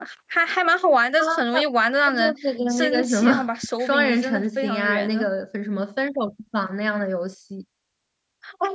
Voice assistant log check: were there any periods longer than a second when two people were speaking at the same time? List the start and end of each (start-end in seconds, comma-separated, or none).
2.1-5.1